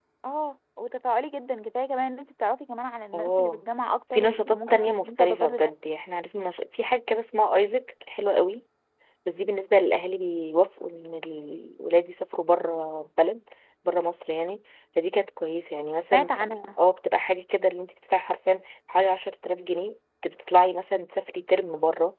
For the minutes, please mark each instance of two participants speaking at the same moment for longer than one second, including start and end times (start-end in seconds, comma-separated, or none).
4.1-5.7